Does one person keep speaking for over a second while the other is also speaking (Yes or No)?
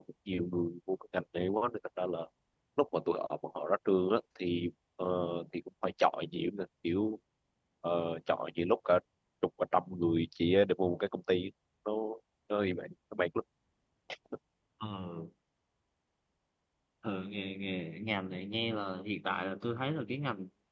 No